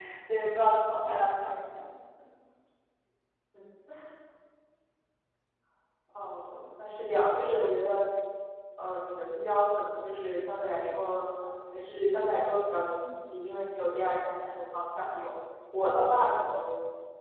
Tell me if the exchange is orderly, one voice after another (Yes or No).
Yes